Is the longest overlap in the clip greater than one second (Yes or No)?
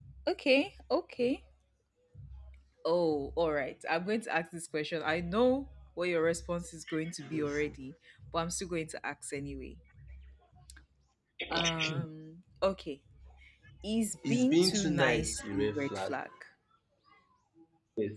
Yes